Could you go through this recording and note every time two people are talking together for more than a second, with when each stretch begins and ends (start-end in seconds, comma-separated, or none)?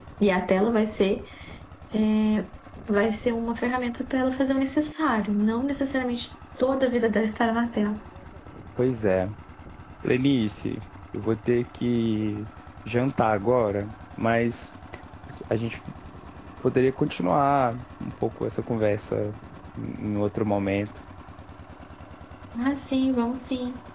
none